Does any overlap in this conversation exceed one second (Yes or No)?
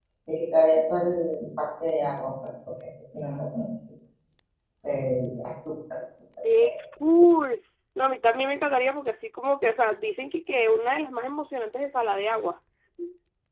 No